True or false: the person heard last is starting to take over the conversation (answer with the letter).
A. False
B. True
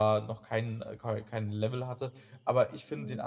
A